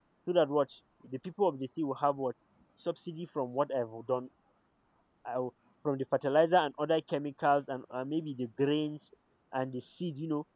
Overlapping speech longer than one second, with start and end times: none

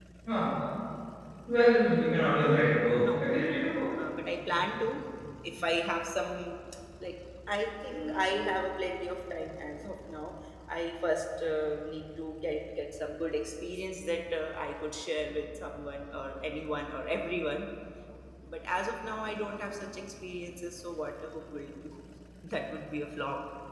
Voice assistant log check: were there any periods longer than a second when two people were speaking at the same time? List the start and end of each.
none

